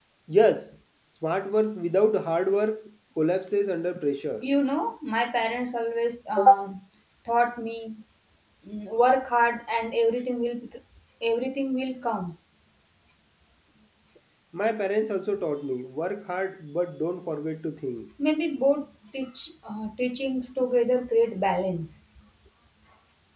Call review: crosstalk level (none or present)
none